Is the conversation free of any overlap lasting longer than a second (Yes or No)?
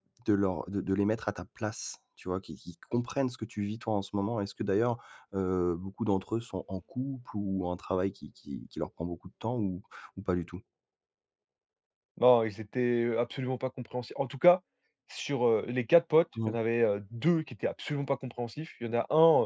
Yes